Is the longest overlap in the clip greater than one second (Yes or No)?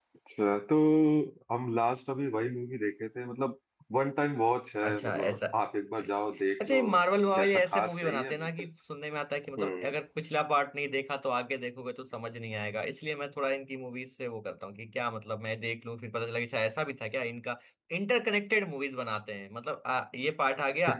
Yes